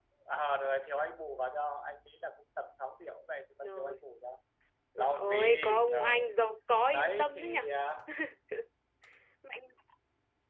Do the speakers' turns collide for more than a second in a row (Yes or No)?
Yes